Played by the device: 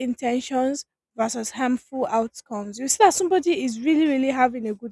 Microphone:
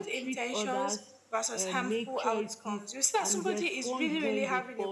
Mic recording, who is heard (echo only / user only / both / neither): both